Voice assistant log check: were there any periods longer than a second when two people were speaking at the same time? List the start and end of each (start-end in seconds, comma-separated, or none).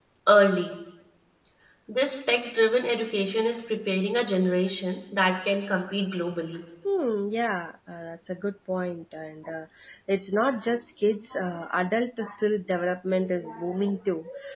none